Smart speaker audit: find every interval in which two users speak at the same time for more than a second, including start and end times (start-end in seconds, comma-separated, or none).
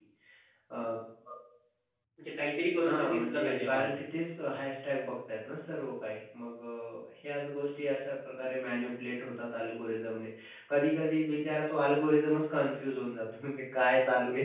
2.8-4.0